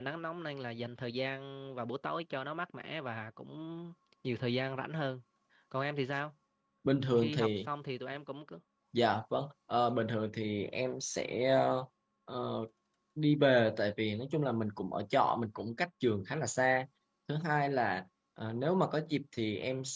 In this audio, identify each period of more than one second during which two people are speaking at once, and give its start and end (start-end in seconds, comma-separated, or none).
none